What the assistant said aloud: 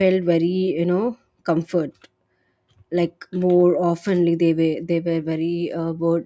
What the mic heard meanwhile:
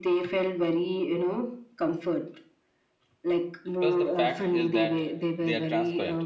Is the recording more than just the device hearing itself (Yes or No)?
Yes